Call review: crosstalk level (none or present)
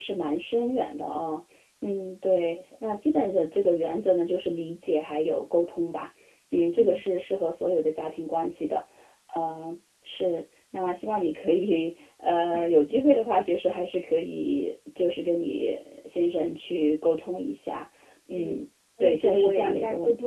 present